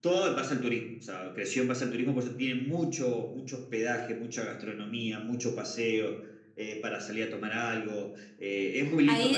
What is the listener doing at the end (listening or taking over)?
taking over